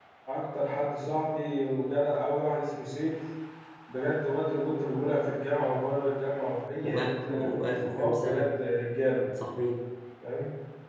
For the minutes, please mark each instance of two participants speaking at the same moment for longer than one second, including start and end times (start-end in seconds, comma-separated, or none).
6.8-8.5